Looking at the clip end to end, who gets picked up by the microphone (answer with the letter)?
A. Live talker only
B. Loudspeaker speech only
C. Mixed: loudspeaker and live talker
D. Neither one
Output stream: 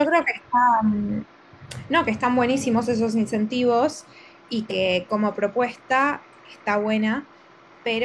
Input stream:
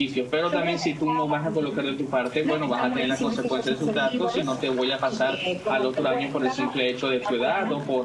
C